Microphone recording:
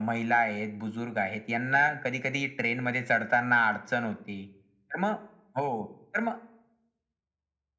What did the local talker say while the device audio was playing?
none

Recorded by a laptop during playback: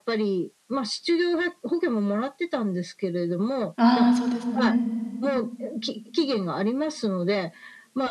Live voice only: ああ、そうですよね。

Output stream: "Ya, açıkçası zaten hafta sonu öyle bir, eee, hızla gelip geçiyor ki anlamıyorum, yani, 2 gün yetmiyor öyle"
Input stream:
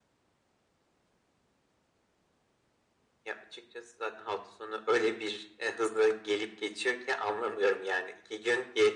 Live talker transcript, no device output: none

